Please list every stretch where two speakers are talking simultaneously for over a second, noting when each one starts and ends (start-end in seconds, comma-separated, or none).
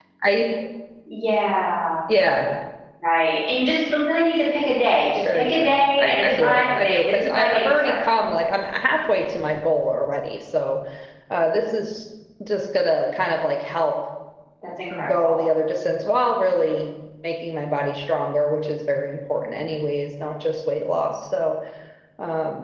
5.3-8.0